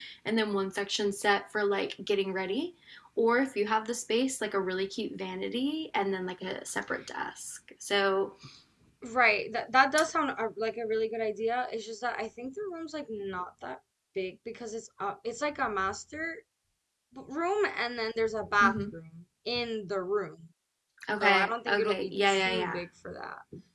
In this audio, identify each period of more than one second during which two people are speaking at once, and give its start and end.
21.2-22.8

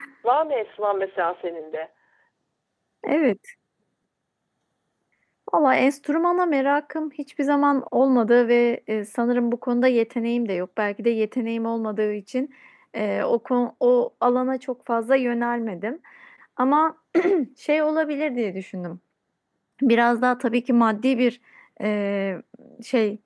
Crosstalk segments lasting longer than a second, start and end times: none

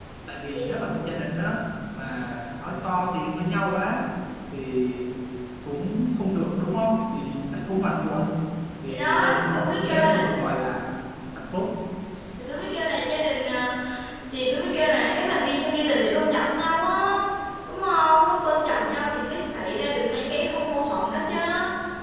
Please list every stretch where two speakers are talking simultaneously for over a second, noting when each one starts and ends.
8.9-10.4

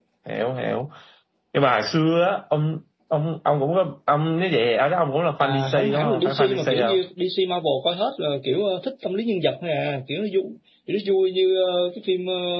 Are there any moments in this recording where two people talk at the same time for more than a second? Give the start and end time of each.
5.4-7.0

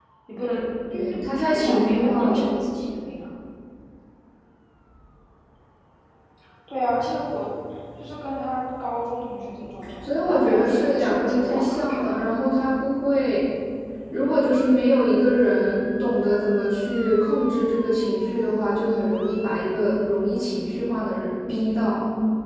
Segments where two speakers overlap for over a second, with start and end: 0.9-2.6, 10.0-12.2

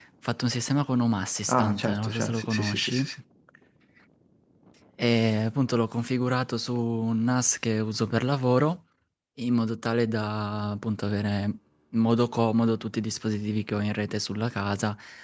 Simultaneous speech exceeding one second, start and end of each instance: 1.5-3.1

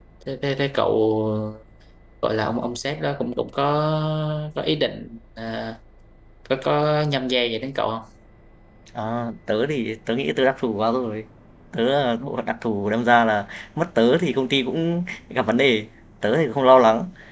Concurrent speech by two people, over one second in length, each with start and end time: none

